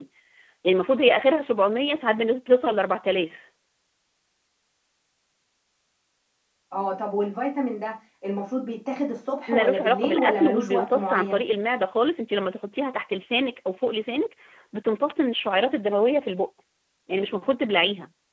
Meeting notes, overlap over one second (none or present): present